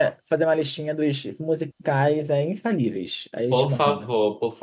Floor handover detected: Yes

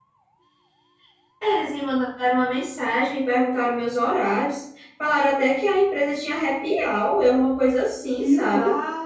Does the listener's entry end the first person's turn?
Yes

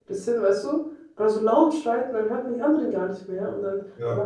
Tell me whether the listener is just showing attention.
Yes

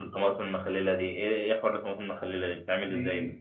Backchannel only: No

